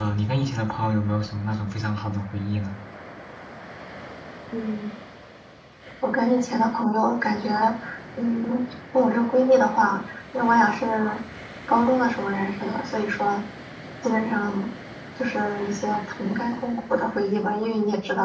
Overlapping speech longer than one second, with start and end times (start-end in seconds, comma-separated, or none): none